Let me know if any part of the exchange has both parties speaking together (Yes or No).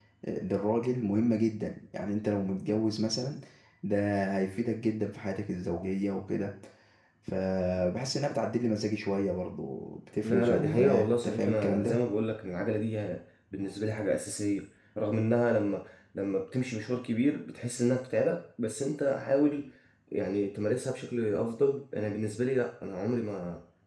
Yes